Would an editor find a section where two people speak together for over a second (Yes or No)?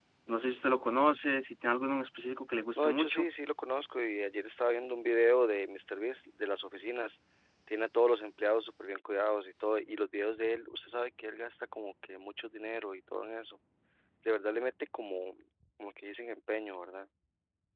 No